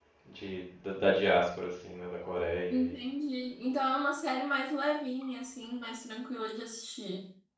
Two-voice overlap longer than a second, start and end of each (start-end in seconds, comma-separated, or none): none